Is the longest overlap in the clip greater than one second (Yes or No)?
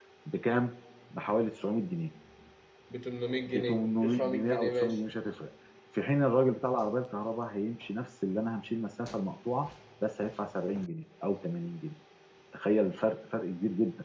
Yes